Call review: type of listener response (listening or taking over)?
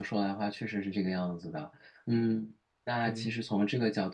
listening